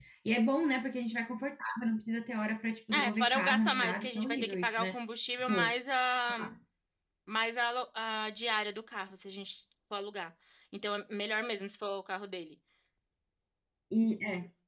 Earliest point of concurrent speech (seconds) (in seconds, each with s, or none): 2.9 s